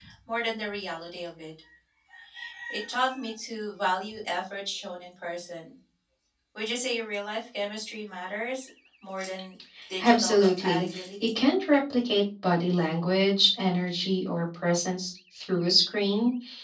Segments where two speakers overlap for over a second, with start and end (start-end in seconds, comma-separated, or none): 10.0-11.3